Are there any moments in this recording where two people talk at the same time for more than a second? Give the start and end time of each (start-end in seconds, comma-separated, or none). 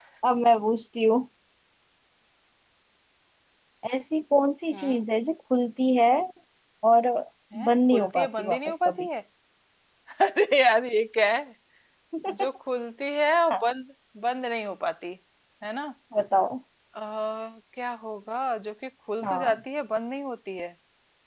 7.6-9.1